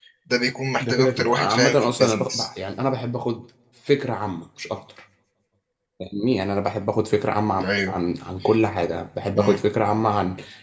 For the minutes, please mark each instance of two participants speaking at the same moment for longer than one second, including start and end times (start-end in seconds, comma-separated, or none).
0.8-2.5